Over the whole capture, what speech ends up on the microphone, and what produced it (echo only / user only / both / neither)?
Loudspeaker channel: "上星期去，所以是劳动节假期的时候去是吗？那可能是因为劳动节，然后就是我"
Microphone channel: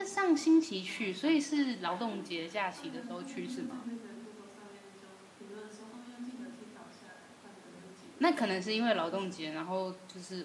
both